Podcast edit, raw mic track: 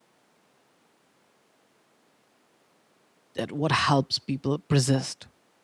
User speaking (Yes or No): Yes